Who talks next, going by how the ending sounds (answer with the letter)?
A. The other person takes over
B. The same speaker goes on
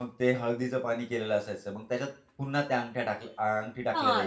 A